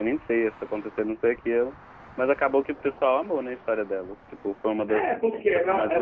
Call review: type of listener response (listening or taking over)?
taking over